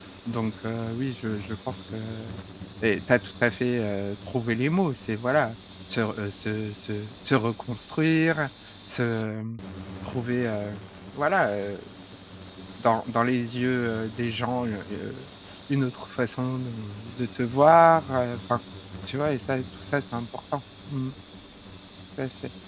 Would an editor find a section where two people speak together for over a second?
No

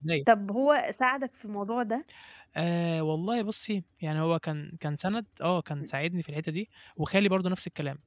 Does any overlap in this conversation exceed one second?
No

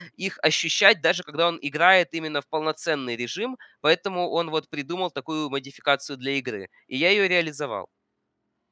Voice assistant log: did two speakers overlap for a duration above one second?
No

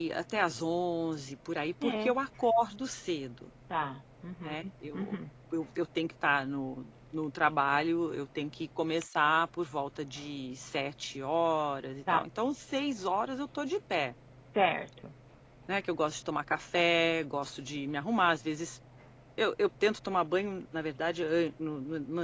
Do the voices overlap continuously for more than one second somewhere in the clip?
No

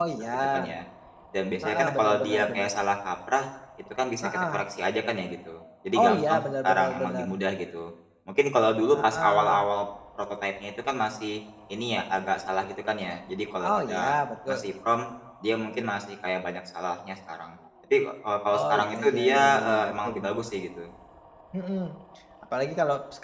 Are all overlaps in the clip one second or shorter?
No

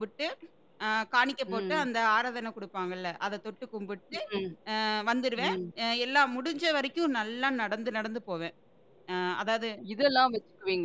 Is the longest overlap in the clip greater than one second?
No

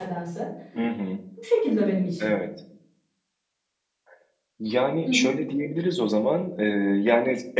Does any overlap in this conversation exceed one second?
No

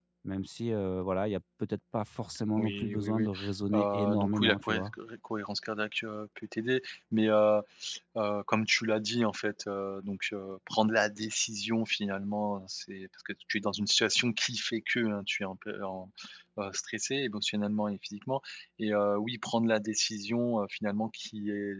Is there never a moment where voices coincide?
No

